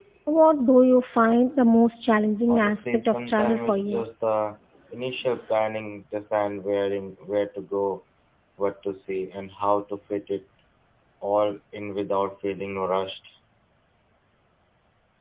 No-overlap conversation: No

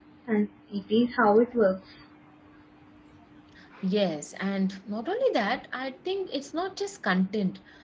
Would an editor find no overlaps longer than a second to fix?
Yes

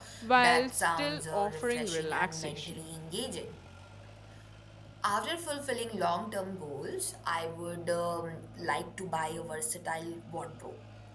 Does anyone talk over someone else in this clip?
Yes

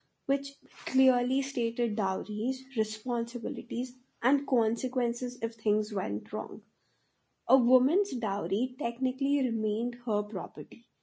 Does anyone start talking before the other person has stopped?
No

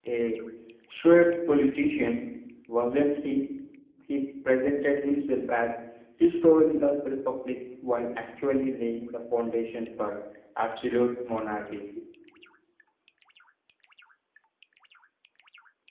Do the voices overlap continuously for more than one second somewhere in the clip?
No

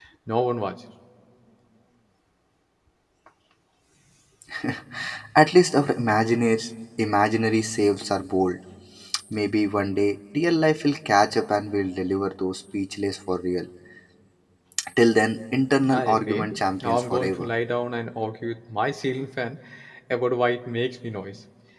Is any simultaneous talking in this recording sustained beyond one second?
Yes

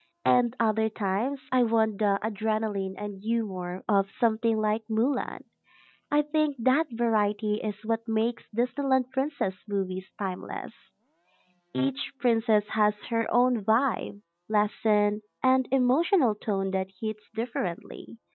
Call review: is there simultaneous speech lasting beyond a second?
No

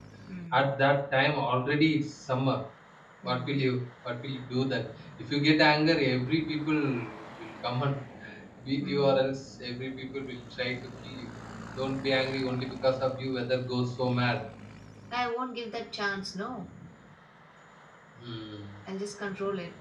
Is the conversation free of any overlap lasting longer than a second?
Yes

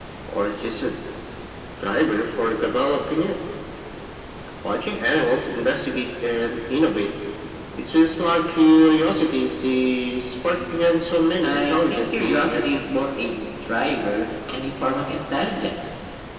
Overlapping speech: Yes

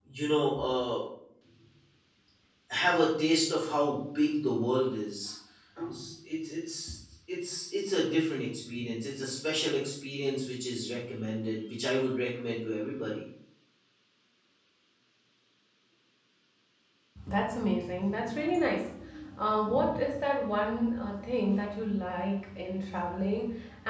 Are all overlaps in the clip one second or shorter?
Yes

